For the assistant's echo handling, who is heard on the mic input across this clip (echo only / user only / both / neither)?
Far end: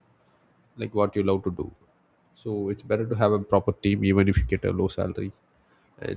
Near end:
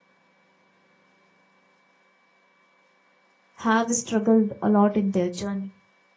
user only